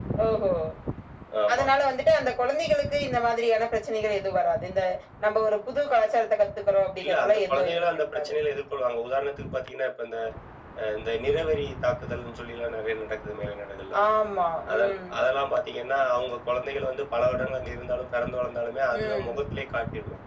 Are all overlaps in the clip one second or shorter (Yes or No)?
No